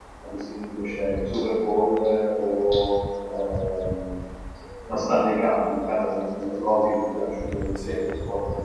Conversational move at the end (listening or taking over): listening